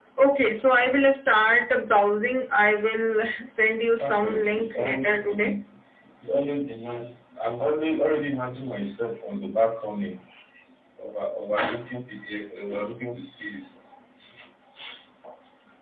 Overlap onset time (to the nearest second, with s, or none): 4 s